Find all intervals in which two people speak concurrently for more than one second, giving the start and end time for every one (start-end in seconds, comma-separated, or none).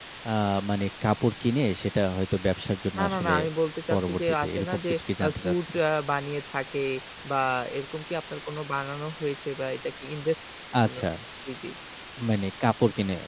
3.9-5.8